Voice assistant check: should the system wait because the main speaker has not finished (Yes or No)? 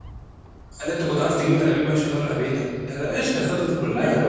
No